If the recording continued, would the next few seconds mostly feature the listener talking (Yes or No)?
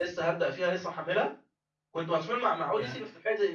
No